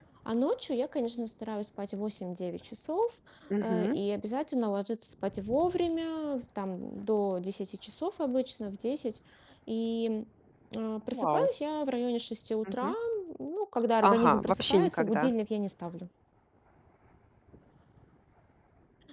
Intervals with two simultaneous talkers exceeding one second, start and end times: 14.0-15.3

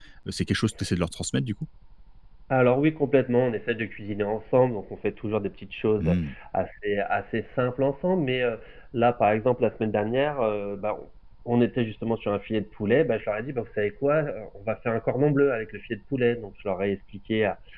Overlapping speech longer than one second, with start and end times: none

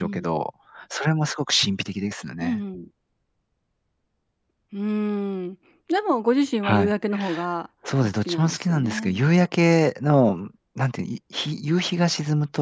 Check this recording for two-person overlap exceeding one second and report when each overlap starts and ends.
8.0-9.2

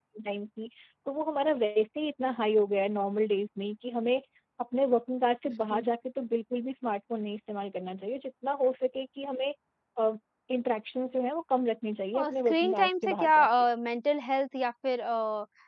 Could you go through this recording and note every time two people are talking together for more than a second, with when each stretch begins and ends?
12.2-13.5

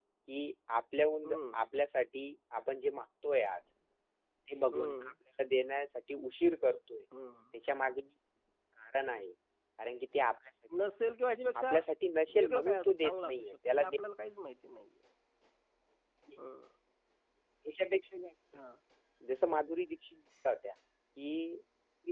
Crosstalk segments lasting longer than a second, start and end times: 12.4-13.9

